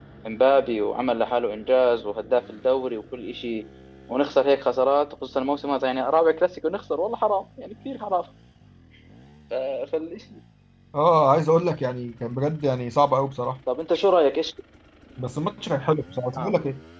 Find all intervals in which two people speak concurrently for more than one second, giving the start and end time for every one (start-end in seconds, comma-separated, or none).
none